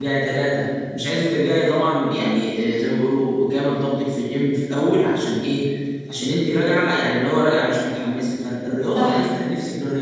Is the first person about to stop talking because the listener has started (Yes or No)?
No